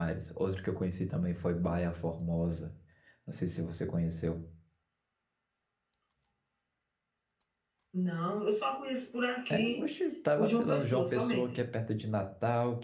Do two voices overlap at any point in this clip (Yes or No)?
Yes